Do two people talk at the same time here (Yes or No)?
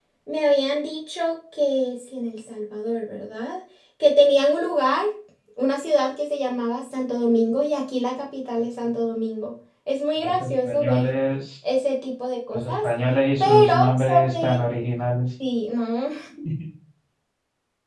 Yes